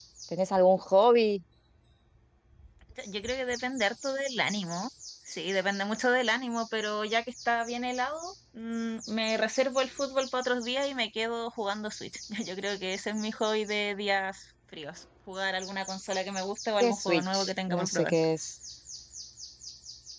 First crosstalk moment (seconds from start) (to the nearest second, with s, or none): 17 s